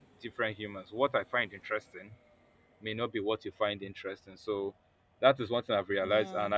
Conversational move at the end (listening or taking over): listening